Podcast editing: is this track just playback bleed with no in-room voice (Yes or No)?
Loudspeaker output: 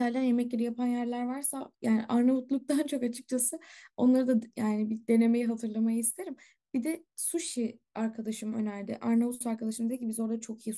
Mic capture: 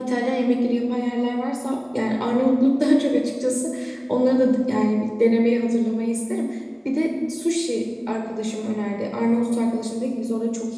Yes